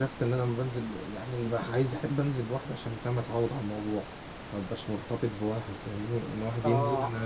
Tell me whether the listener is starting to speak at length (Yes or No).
Yes